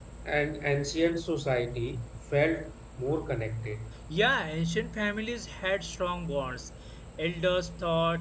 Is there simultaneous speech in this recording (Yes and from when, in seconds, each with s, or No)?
No